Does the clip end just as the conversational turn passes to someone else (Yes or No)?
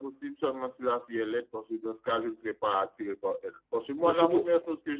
No